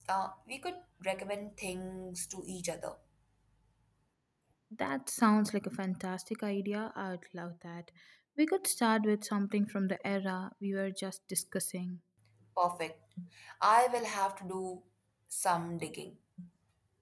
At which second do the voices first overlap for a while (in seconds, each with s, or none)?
none